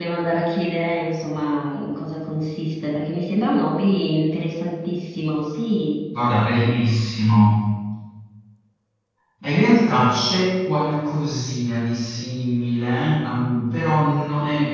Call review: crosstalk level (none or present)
none